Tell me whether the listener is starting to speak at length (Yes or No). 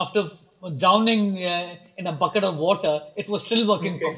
Yes